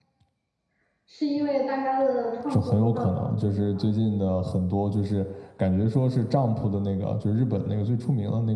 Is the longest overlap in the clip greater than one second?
Yes, from 2.5 s

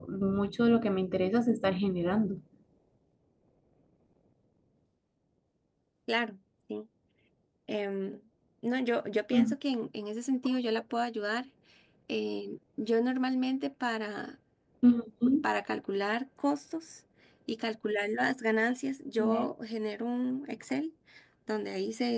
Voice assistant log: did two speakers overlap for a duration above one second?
No

